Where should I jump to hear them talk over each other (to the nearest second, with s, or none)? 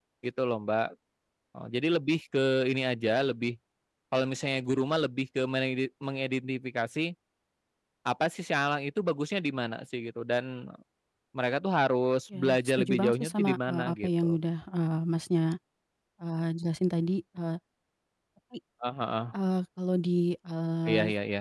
12 s